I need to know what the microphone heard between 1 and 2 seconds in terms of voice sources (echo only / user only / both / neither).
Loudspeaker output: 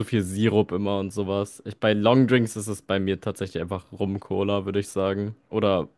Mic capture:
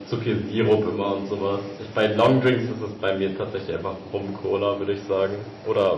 echo only